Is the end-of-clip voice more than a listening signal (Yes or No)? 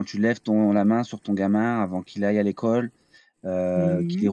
Yes